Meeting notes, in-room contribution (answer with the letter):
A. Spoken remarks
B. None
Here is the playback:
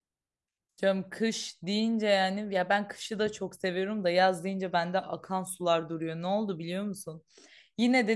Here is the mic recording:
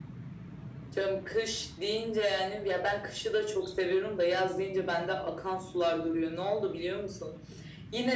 B